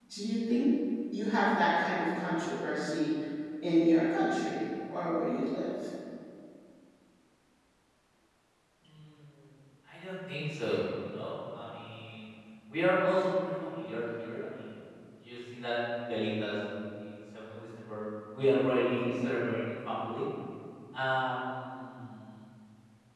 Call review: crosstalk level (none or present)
none